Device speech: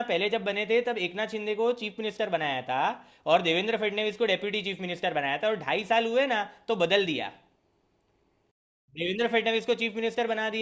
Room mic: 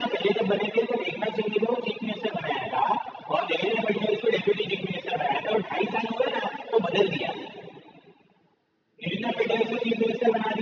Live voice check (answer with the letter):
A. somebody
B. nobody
A